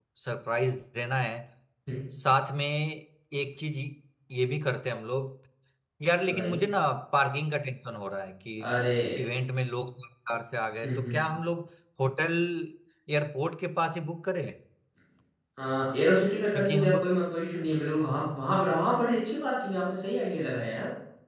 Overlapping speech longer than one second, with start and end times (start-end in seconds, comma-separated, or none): none